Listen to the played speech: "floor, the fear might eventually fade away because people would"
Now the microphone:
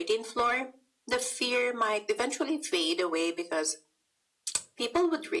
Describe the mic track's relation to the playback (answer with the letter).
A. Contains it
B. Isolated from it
A